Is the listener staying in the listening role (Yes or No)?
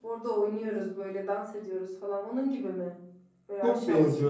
No